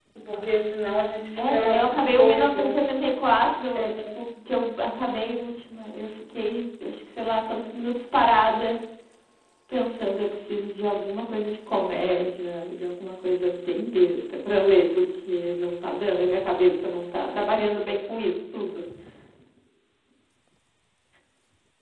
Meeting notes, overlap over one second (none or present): present